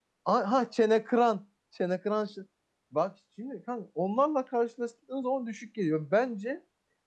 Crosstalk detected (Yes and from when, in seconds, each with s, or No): No